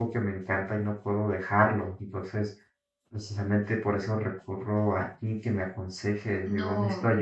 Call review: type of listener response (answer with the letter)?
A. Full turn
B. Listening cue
A